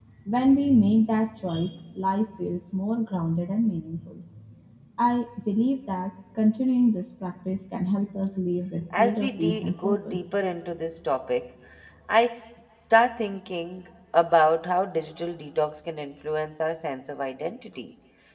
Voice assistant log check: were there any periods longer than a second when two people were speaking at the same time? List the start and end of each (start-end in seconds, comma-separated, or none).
9.0-10.2